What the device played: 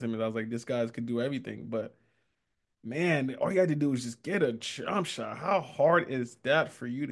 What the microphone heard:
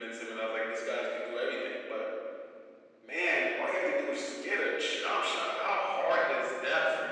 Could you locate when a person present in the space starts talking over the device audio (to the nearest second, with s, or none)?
none